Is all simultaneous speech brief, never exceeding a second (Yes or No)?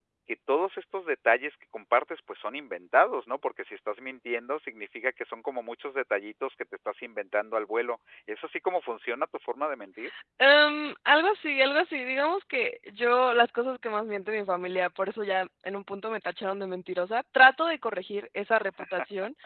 Yes